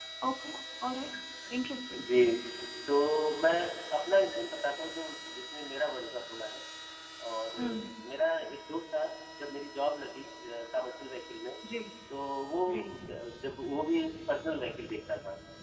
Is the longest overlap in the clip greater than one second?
No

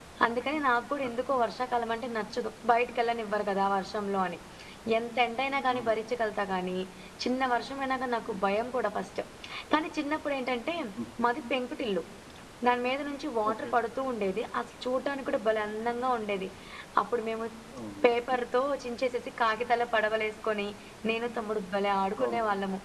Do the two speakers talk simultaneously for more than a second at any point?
No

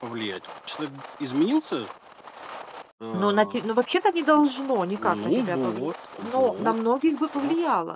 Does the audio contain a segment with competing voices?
Yes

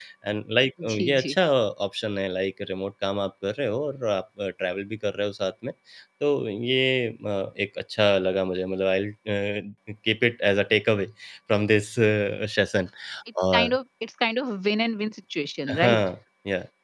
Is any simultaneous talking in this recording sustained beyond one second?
No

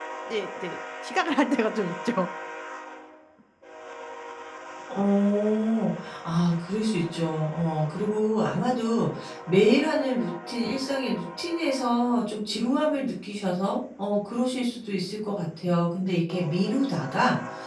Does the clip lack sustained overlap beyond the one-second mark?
Yes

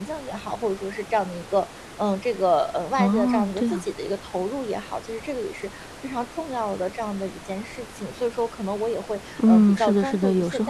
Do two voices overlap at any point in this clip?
Yes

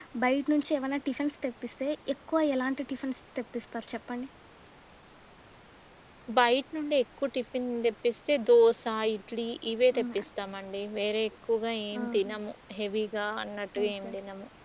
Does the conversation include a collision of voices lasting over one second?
No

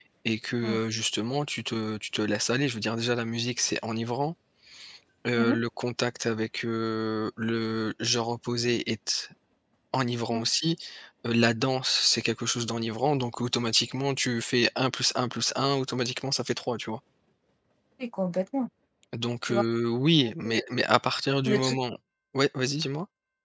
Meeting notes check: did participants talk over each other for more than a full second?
No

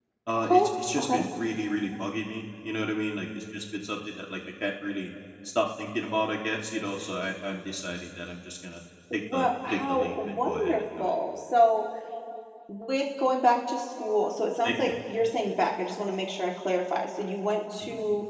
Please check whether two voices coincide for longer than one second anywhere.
Yes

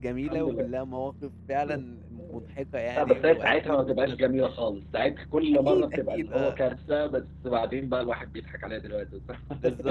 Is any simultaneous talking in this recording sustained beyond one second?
Yes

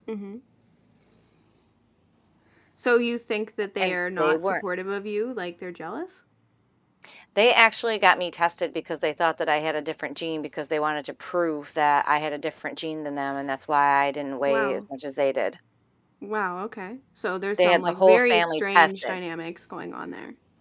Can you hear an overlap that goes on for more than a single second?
Yes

